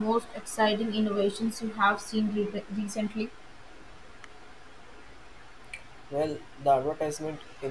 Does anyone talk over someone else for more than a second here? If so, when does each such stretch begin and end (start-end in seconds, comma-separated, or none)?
none